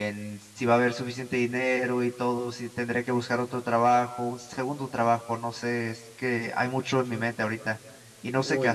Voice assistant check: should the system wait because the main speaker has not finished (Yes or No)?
No